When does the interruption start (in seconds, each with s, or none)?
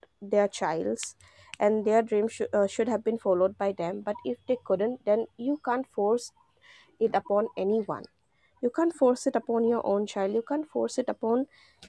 none